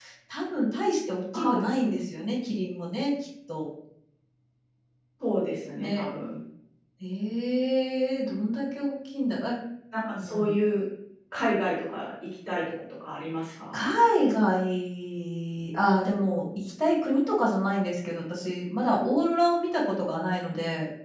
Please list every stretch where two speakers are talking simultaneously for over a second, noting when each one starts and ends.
none

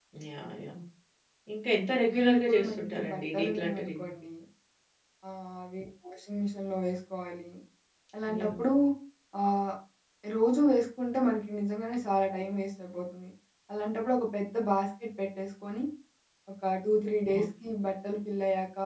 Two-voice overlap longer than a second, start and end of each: 2.1-4.1

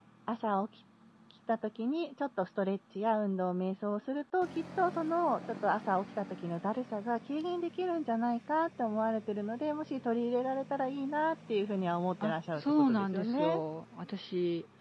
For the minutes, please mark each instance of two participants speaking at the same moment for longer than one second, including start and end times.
12.2-13.6

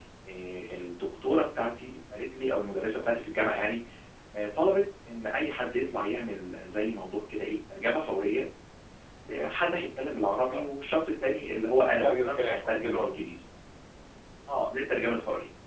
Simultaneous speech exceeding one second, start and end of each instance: 11.8-13.1

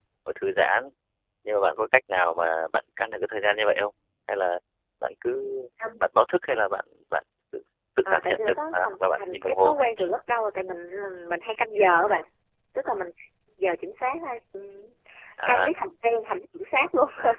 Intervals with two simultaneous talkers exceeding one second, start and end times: 8.1-10.1

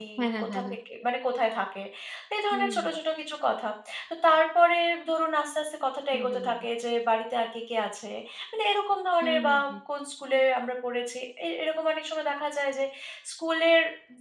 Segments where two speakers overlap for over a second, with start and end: none

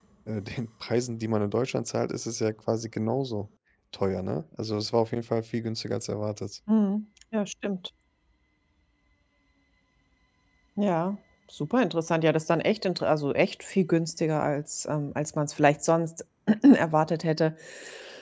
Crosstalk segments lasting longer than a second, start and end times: none

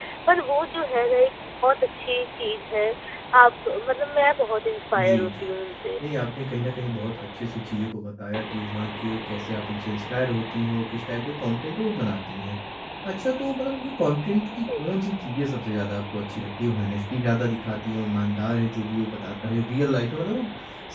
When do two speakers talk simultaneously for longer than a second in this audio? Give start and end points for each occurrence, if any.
none

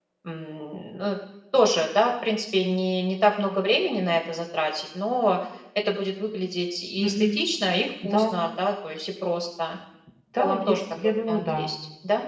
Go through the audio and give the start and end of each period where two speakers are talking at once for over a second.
10.4-11.7

